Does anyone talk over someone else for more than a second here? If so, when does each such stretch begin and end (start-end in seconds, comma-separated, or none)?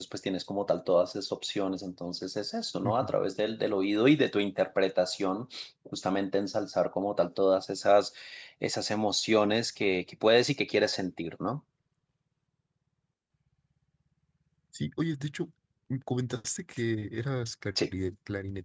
none